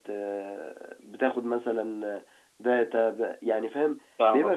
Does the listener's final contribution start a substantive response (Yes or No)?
Yes